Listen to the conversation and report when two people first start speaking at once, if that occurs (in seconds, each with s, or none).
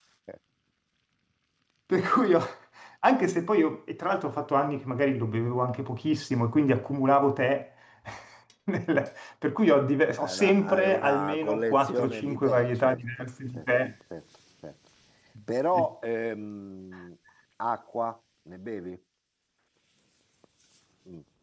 10.2 s